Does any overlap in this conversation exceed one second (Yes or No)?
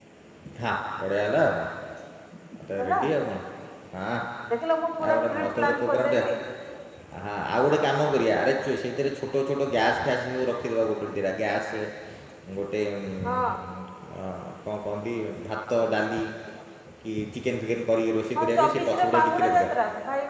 Yes